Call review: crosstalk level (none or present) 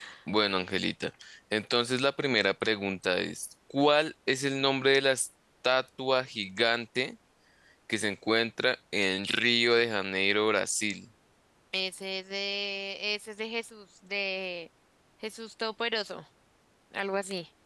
none